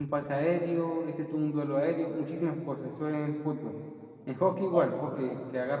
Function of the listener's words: listening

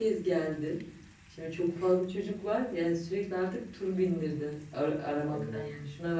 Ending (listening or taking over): listening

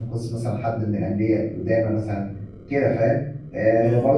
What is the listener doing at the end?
listening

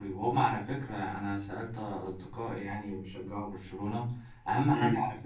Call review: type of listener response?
listening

